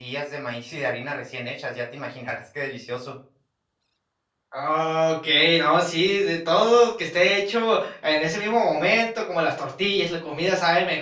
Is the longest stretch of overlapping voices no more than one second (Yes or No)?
Yes